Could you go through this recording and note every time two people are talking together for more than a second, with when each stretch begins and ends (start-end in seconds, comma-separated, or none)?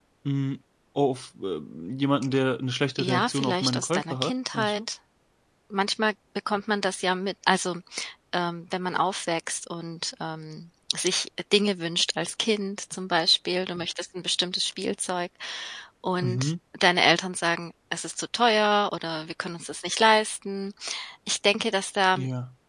3.0-4.8